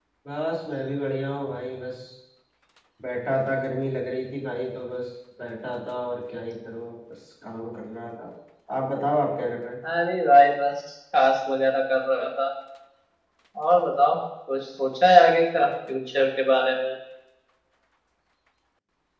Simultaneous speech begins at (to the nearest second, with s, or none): none